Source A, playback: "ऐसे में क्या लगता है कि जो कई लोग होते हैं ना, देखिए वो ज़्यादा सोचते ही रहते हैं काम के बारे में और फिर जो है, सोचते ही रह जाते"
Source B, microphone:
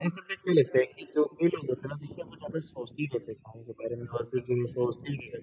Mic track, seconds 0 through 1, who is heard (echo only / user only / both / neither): echo only